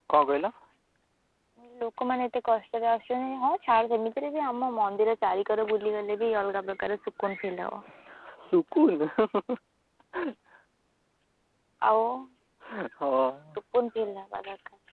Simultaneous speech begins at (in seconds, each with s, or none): none